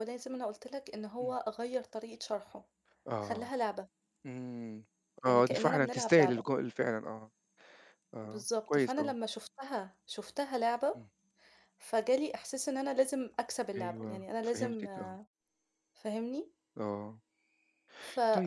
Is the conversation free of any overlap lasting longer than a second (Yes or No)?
No